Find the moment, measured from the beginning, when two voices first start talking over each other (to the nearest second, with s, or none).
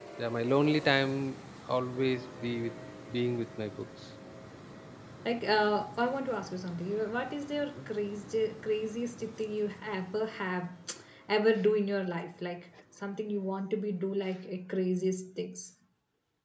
none